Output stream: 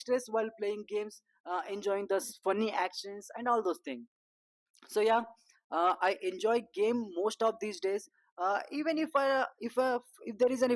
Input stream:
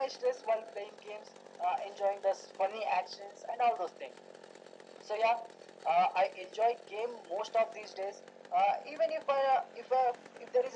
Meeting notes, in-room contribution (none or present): none